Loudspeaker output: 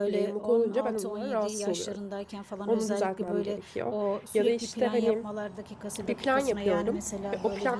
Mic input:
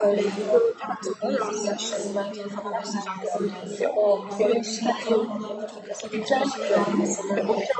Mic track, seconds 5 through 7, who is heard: both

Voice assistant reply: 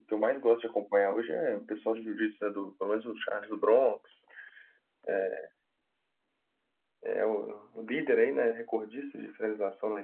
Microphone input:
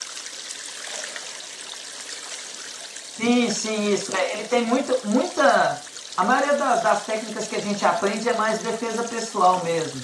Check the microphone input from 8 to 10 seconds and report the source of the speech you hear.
user only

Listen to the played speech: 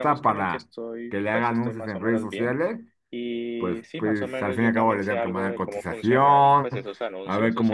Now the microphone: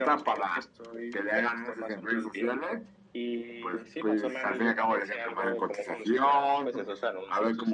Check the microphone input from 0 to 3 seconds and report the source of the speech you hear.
echo only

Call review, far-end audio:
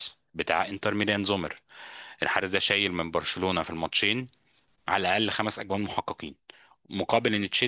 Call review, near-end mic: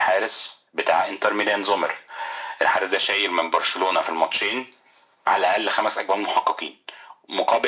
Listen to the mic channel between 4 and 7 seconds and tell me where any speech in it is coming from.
echo only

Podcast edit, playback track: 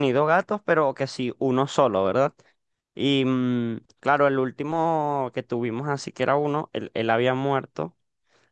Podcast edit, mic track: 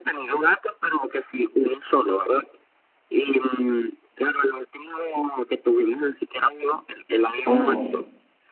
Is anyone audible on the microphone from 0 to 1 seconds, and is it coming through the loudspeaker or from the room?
echo only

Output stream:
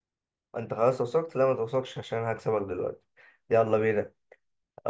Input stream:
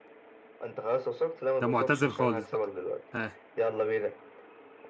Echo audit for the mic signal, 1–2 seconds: both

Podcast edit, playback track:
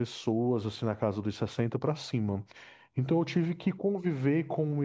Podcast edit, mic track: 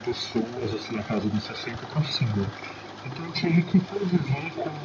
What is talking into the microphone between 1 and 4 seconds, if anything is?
echo only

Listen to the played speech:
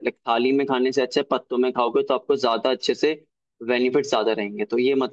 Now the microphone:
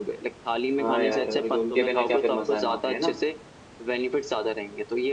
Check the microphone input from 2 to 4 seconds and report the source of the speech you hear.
both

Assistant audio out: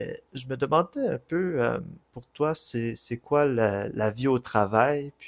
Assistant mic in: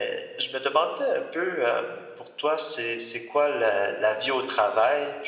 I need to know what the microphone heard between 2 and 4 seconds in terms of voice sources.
echo only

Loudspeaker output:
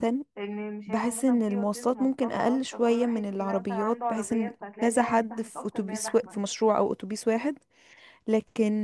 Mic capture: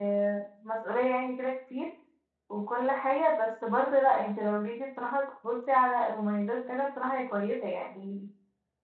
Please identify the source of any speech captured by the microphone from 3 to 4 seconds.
user only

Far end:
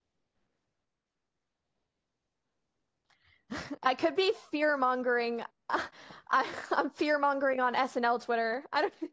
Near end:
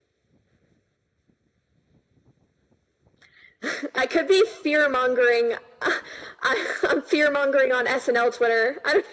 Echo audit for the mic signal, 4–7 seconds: echo only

